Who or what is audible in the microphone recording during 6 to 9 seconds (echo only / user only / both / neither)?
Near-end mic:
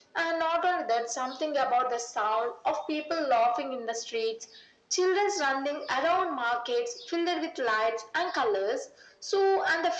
echo only